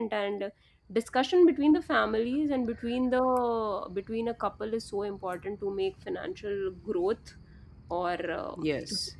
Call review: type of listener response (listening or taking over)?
listening